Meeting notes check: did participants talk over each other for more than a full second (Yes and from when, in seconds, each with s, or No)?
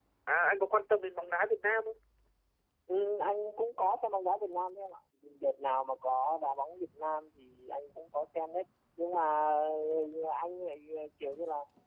No